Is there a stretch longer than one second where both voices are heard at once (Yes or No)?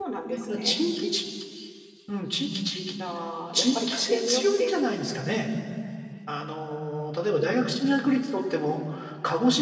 Yes